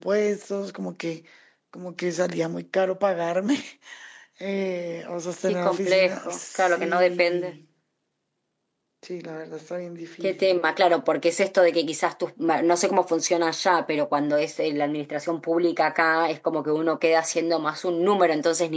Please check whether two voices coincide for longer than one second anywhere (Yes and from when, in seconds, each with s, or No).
Yes, from 5.5 s